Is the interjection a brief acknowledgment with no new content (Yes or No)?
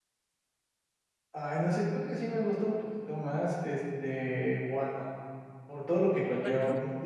Yes